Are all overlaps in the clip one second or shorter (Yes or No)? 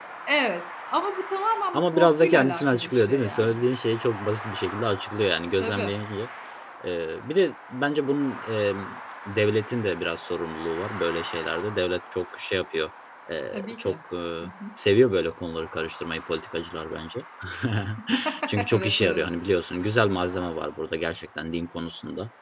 No